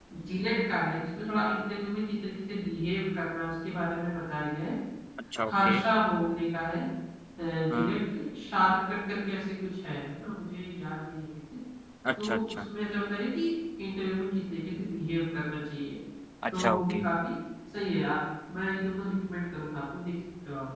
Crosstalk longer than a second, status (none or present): none